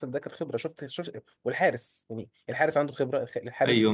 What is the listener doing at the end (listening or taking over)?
taking over